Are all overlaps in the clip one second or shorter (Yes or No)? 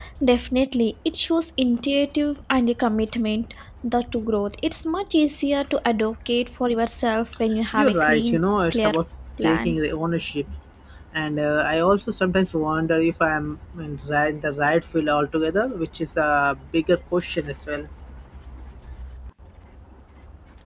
No